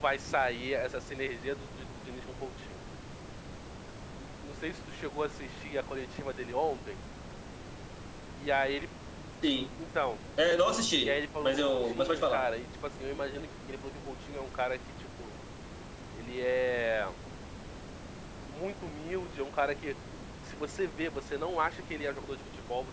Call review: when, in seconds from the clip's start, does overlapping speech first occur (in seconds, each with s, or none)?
11.0 s